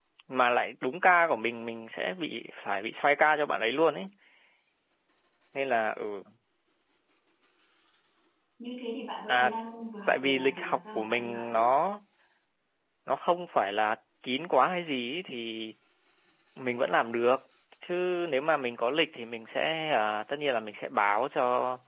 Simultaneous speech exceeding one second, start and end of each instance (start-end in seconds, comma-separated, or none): 10.1-11.7